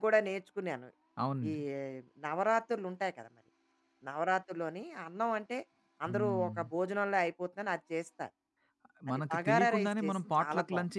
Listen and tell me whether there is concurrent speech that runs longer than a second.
Yes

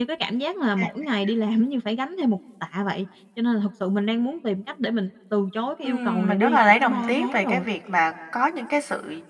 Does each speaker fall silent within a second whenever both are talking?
No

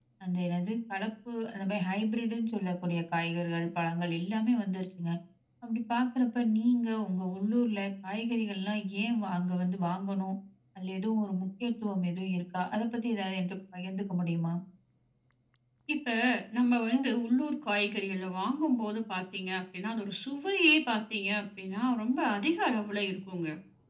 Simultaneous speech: No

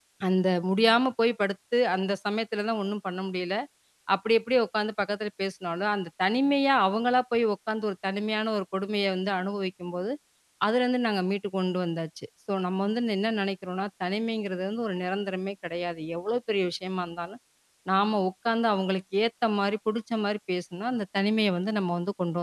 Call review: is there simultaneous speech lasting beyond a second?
No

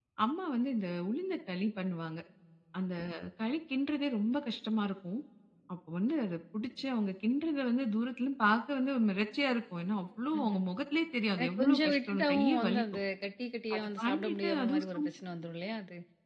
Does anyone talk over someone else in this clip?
Yes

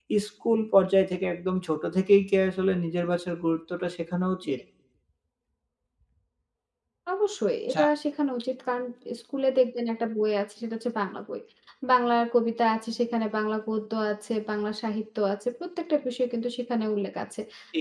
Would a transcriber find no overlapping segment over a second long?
Yes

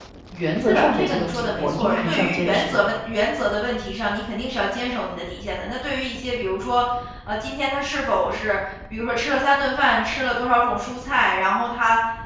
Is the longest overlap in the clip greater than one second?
Yes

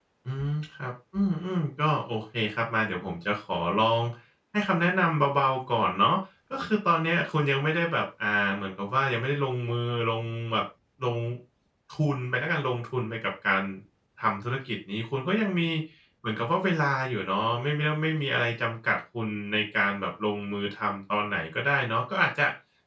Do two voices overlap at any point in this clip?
No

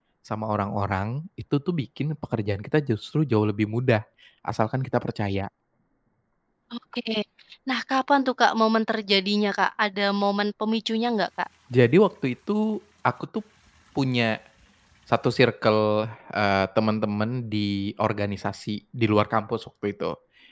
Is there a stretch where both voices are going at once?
No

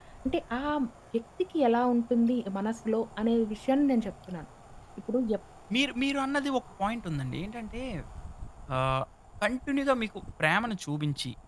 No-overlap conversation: Yes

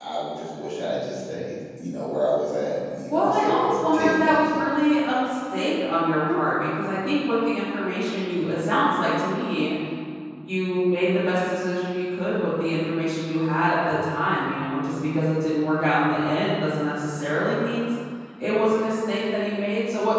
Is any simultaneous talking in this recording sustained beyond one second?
Yes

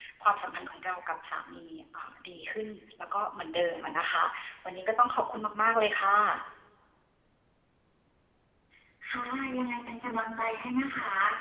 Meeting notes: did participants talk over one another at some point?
No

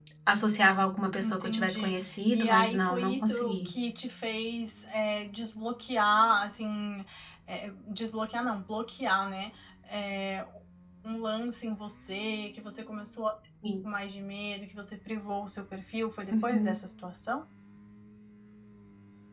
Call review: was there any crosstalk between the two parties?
Yes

